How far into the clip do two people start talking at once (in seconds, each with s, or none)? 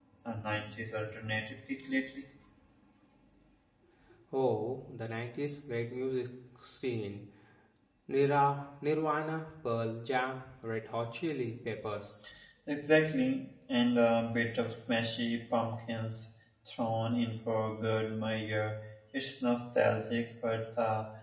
none